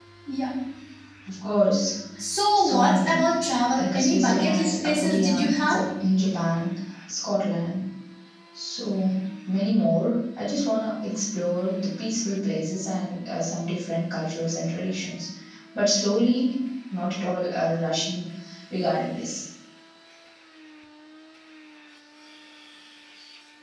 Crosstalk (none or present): present